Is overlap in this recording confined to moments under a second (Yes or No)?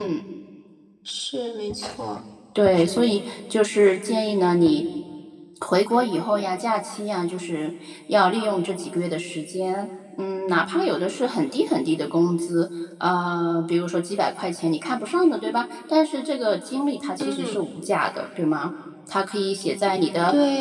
Yes